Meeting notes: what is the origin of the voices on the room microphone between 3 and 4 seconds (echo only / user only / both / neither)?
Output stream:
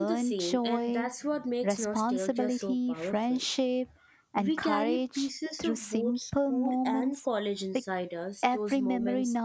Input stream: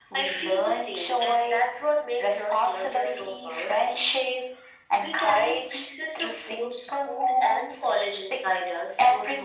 echo only